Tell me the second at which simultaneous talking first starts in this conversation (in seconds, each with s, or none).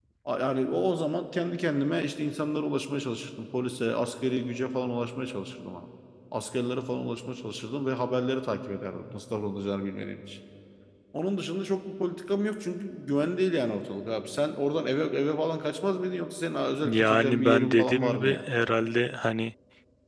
16.8 s